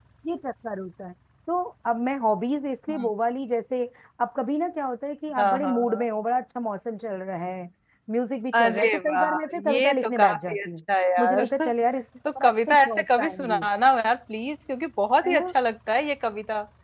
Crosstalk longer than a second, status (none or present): present